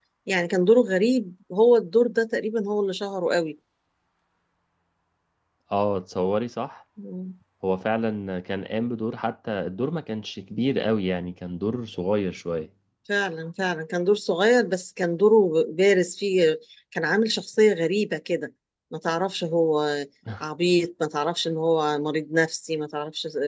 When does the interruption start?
none

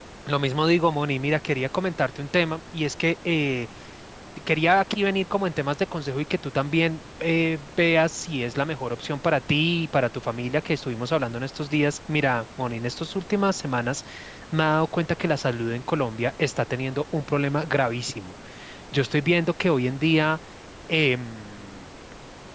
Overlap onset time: none

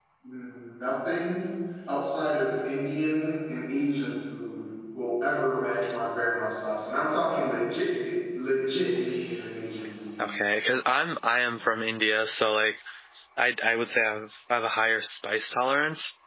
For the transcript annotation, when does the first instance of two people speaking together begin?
none

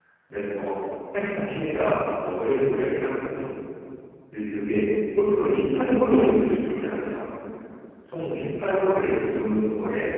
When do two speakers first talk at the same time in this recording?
none

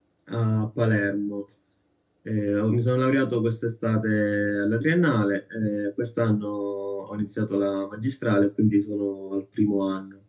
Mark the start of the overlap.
none

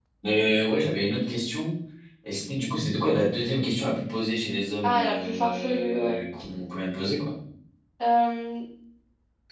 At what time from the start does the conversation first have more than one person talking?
4.8 s

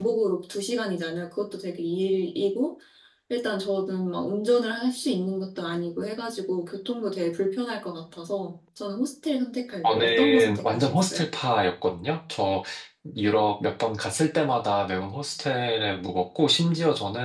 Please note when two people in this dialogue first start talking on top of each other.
9.8 s

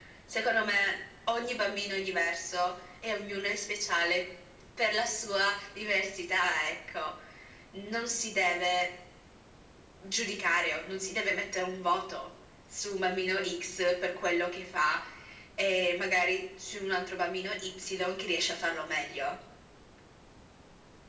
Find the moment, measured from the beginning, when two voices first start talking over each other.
none

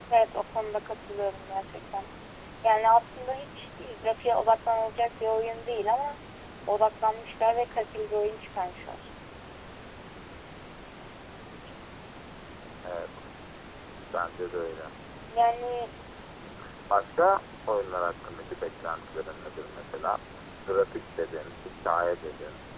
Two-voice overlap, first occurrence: none

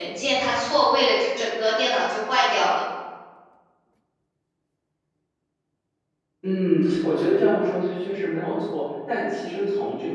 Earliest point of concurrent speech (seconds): none

